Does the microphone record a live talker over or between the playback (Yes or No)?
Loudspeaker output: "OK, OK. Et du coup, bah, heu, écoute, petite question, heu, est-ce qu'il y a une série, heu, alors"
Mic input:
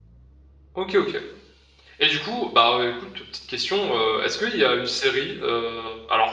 No